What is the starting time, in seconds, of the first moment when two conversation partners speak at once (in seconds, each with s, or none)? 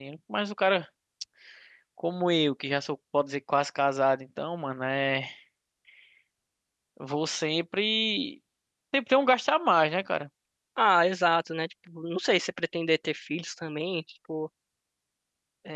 none